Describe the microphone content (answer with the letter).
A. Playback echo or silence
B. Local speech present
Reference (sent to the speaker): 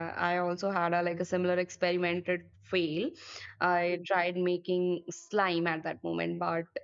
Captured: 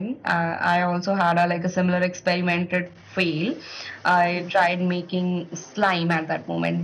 A